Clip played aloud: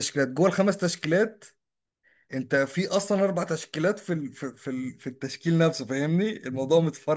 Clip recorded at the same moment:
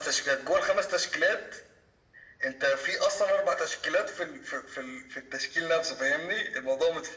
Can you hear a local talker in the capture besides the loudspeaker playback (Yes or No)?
No